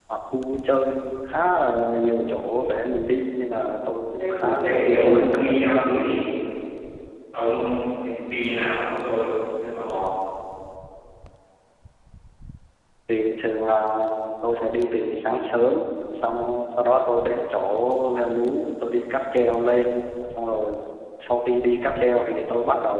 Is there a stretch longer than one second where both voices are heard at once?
Yes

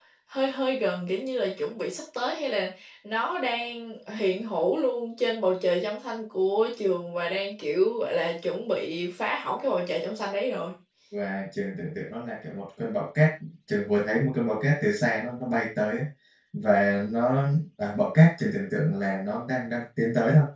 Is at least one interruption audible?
No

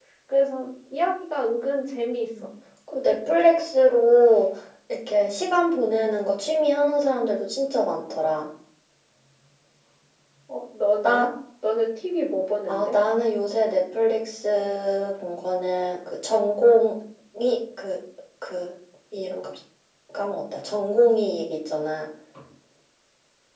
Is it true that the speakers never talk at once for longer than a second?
Yes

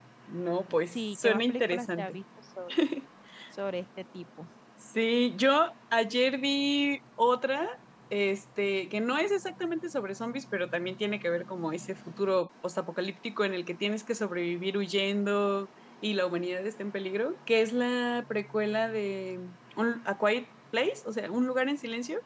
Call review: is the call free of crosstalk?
No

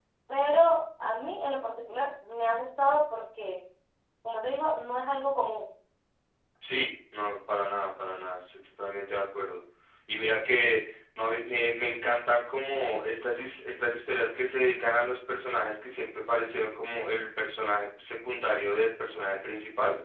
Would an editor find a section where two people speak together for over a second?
No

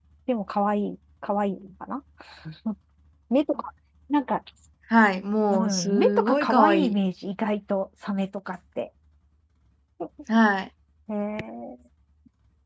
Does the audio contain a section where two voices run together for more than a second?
Yes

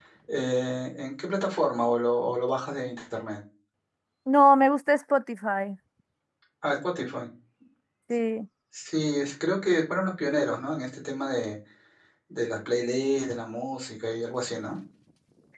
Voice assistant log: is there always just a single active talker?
Yes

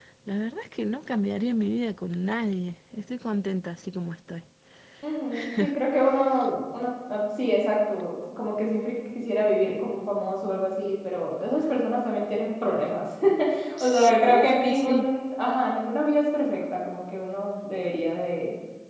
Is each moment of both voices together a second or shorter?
No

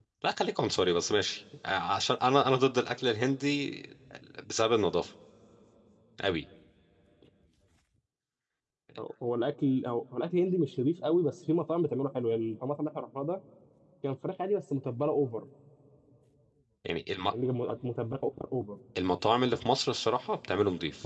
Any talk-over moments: No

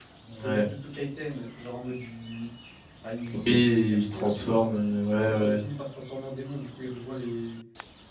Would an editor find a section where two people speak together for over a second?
Yes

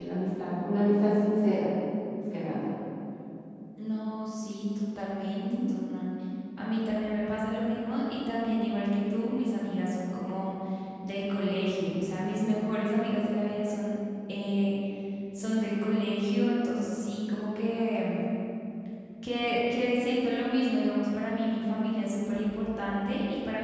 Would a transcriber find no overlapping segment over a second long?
Yes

